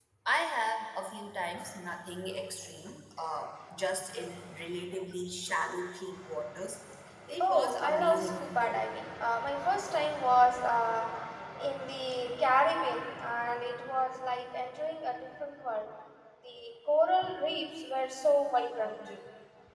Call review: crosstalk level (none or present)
present